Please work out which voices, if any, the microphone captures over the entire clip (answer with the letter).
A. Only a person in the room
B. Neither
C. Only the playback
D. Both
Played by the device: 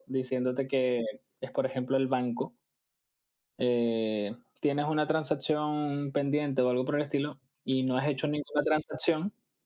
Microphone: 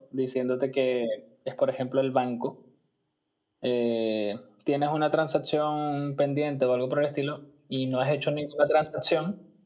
C